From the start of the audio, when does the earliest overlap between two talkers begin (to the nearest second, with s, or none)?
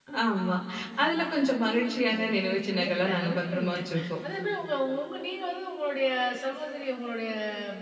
2 s